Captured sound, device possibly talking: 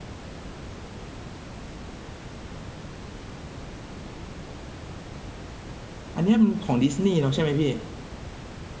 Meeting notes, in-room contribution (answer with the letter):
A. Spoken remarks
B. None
A